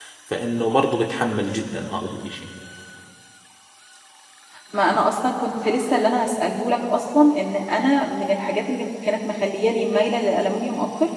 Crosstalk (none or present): none